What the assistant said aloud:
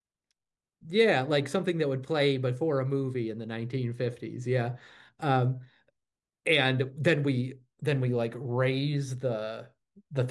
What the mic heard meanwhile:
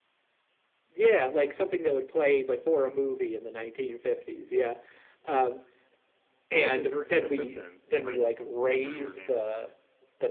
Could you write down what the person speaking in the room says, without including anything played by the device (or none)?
Oh, he, her, his assistant, right? I forget what her name is though.